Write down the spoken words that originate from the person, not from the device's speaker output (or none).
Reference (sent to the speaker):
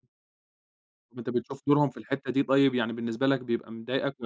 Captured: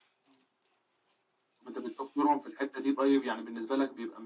none